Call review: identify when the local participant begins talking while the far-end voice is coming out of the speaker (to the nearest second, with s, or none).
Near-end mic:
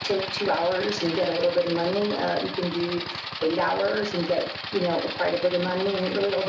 none